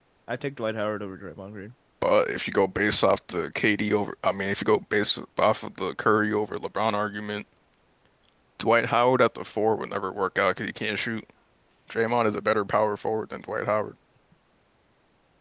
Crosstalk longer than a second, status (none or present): none